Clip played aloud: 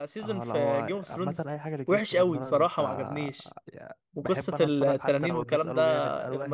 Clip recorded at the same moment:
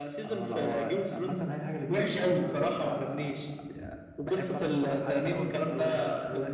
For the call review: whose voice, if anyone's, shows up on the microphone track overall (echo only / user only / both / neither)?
echo only